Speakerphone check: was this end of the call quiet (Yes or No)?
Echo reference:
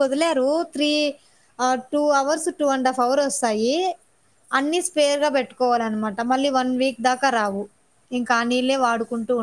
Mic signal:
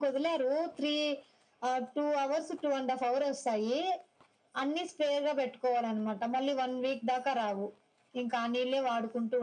Yes